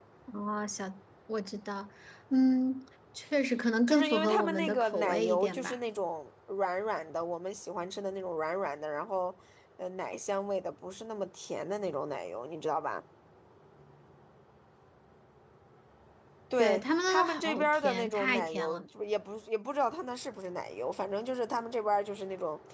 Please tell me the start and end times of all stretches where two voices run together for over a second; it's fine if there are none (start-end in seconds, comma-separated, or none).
3.9-5.8, 16.6-18.8